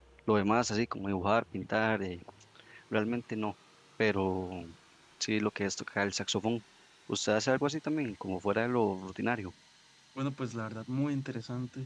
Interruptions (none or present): none